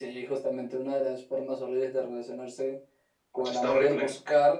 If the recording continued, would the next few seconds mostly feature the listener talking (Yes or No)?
No